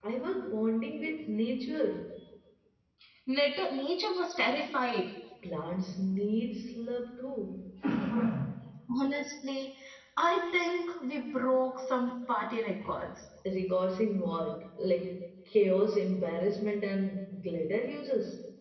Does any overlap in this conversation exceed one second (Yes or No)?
No